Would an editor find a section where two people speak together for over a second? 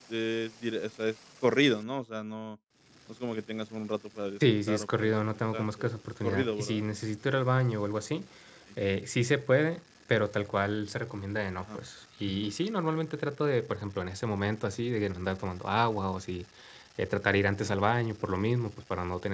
Yes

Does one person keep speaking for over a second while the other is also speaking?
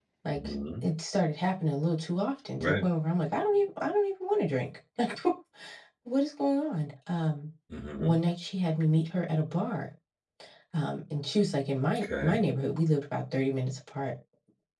No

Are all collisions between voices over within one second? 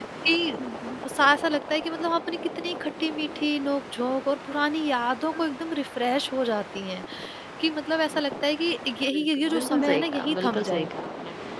No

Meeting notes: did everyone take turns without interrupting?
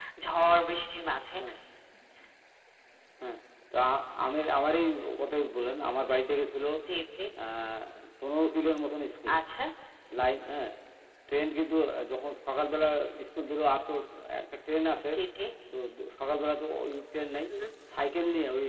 Yes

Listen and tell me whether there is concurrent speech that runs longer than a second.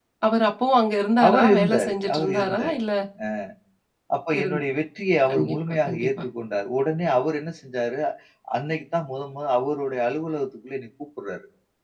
Yes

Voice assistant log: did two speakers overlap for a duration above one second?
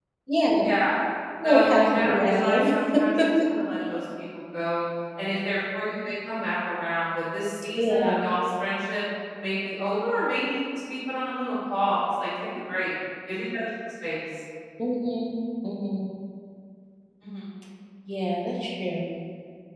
Yes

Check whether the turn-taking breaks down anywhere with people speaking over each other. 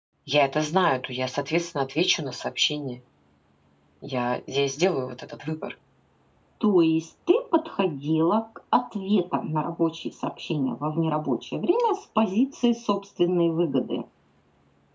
No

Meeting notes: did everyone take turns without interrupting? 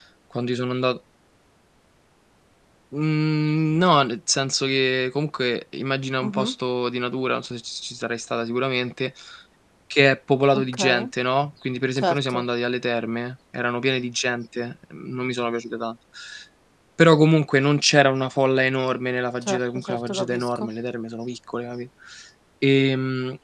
No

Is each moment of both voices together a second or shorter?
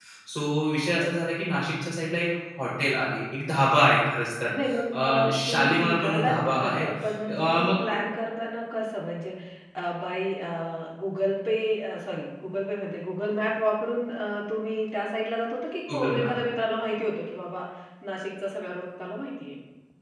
No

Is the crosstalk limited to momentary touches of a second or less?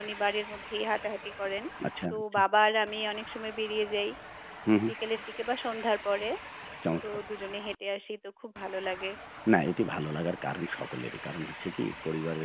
Yes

